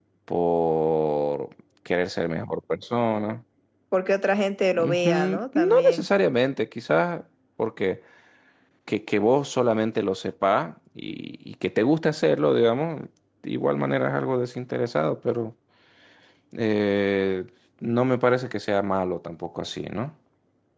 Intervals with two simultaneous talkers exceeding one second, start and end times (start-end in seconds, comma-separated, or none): 4.8-6.1